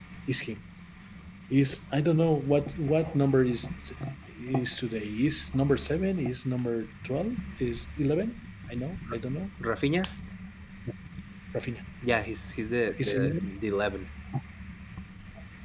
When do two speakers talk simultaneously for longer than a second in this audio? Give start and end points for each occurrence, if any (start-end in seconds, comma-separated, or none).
none